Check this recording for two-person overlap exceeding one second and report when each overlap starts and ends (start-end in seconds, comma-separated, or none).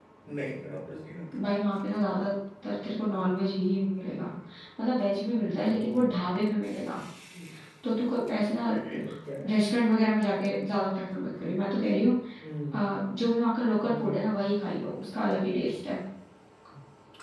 none